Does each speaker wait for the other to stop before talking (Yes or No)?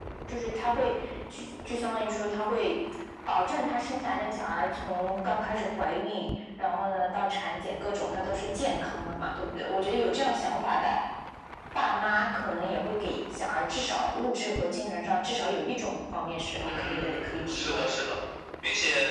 No